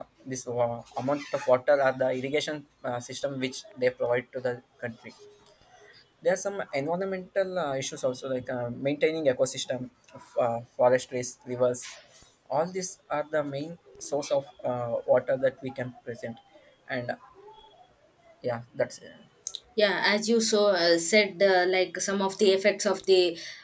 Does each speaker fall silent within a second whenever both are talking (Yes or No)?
Yes